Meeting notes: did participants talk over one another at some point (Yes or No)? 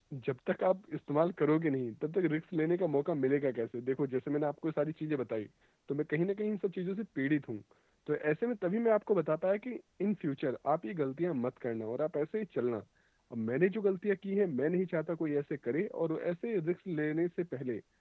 No